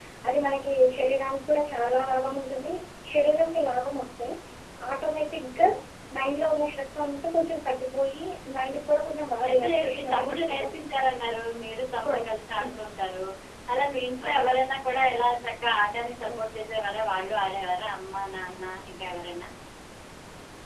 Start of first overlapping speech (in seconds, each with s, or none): 9.4 s